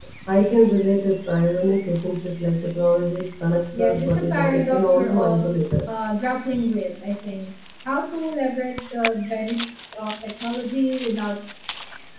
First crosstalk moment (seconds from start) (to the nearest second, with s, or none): 4 s